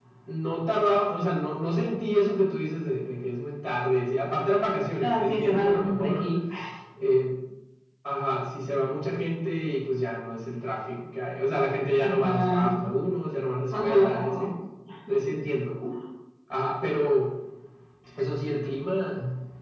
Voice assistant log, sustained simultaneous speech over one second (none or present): present